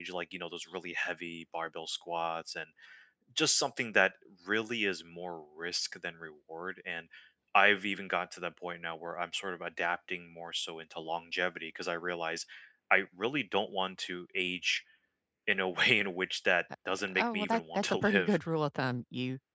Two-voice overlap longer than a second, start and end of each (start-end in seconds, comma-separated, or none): 17.2-18.4